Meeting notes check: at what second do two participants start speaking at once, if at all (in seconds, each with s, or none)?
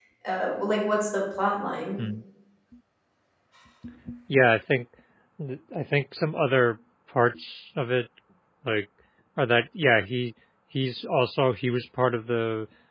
none